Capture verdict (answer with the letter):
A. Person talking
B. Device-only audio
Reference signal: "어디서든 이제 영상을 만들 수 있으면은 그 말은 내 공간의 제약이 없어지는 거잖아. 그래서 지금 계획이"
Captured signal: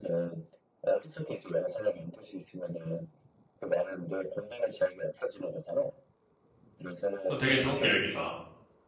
A